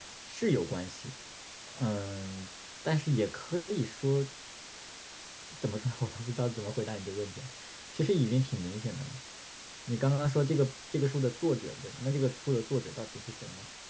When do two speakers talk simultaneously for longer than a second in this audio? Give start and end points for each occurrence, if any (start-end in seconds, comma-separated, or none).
none